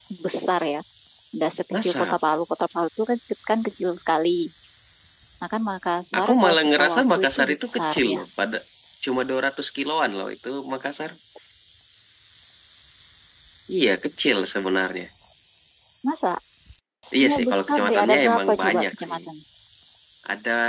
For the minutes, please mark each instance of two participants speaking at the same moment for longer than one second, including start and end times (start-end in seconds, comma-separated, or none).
6.2-8.2, 17.2-19.2